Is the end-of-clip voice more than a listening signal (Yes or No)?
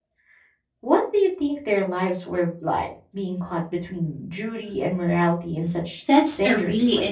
Yes